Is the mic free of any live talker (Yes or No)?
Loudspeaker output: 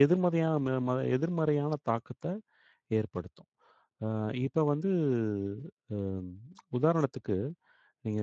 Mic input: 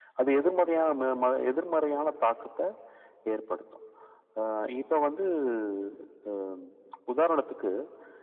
Yes